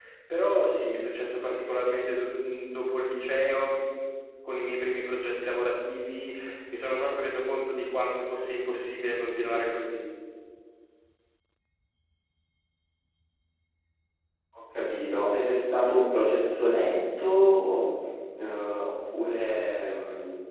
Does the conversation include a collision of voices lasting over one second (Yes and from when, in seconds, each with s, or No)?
No